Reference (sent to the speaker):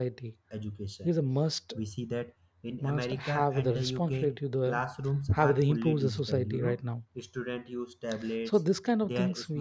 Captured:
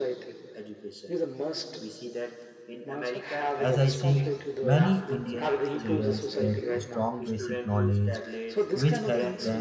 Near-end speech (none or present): present